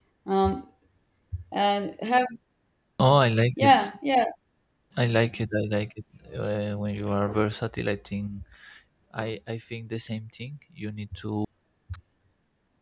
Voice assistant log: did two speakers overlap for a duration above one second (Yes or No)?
No